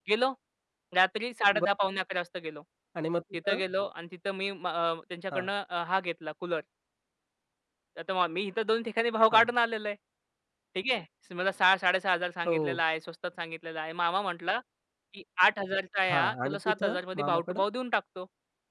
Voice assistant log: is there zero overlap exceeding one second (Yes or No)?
No